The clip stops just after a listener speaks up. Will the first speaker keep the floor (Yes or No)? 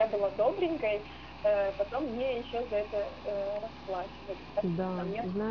No